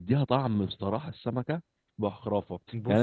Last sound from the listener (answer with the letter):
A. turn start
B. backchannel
B